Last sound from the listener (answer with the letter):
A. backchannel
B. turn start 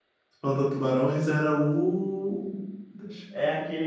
B